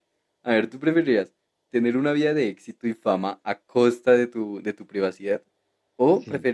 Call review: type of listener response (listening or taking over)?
listening